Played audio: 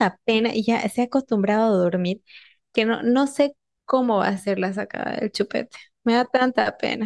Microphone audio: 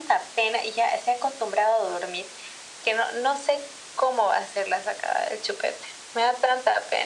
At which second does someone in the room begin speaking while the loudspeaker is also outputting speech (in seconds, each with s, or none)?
none